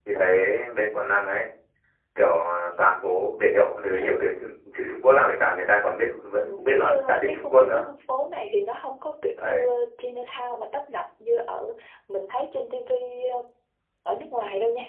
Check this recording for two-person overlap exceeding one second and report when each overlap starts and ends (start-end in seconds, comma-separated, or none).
6.4-7.8